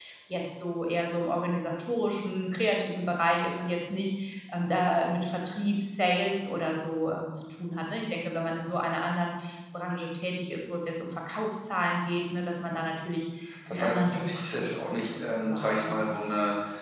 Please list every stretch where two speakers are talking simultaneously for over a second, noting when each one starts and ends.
13.7-16.1

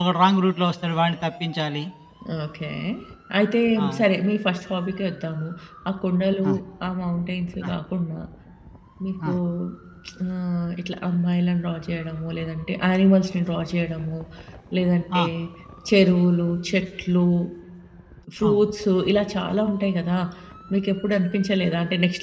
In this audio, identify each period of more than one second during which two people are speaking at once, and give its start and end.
none

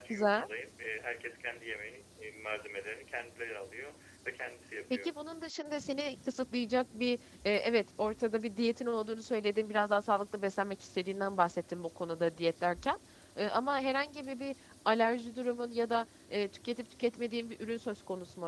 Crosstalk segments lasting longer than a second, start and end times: none

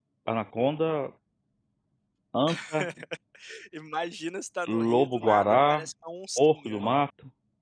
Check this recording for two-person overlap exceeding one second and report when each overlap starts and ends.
4.7-5.9

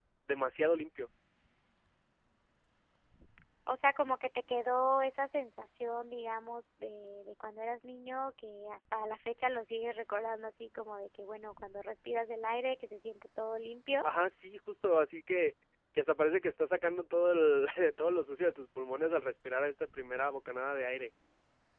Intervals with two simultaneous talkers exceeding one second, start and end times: none

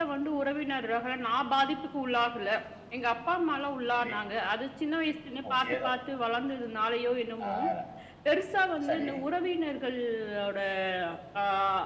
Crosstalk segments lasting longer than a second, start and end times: none

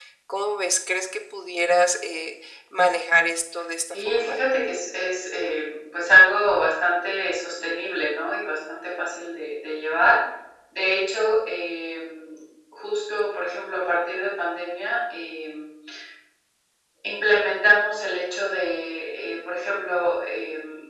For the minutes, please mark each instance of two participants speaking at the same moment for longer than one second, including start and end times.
none

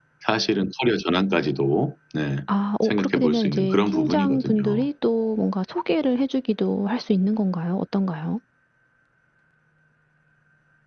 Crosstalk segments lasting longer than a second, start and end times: 2.8-4.9

